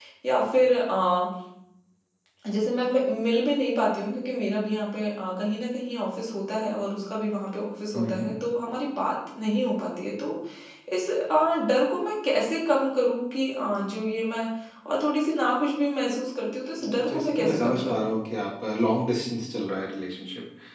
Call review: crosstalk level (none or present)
present